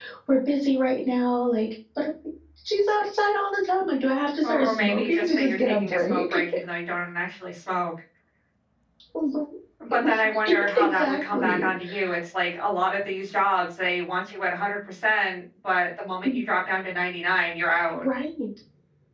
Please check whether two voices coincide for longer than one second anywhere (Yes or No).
Yes